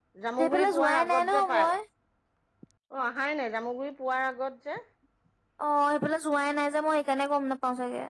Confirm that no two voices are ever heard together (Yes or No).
No